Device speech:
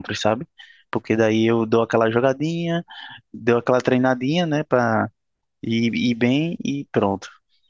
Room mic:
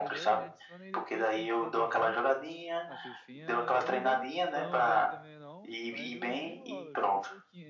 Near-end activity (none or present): present